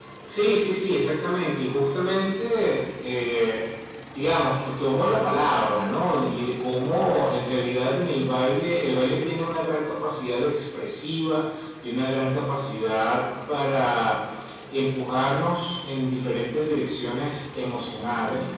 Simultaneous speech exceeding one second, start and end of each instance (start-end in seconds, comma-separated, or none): none